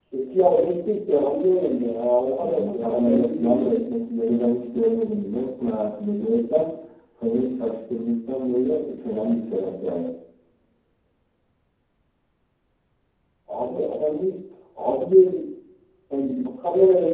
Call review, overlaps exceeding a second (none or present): present